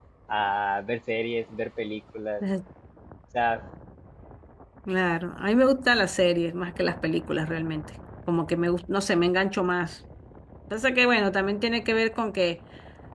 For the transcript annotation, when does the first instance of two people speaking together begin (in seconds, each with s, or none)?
none